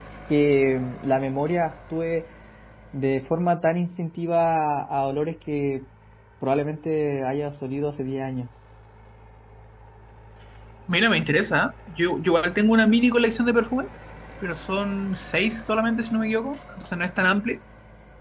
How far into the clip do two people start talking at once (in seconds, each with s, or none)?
none